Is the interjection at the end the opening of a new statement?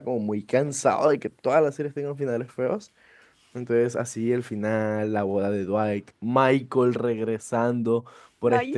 No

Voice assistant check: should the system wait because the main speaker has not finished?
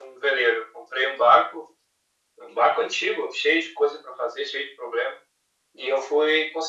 Yes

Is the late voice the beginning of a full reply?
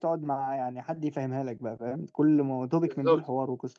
No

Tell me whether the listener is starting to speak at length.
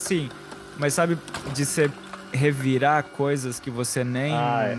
Yes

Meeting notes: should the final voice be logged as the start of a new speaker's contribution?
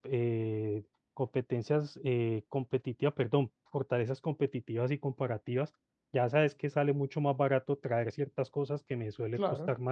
No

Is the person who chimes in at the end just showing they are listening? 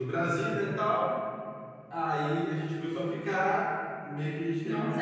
Yes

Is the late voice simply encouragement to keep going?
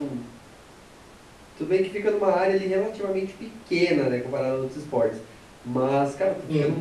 Yes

